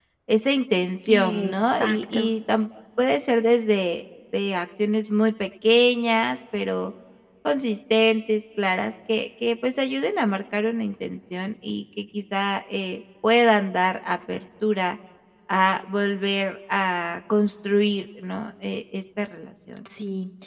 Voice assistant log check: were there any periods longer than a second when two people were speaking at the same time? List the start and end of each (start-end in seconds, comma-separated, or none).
1.1-2.3